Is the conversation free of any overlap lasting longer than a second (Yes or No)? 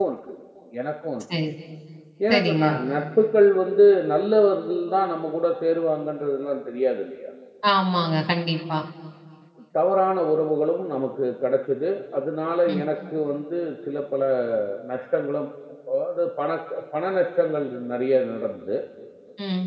Yes